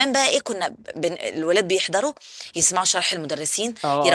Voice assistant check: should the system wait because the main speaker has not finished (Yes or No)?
Yes